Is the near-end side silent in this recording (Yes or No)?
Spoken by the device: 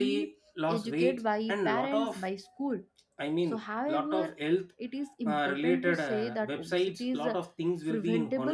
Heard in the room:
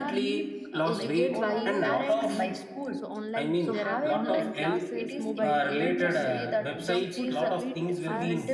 No